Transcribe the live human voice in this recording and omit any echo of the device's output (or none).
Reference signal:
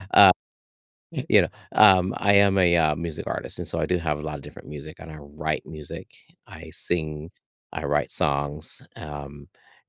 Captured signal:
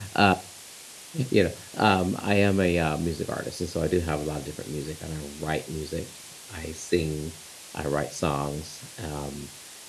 none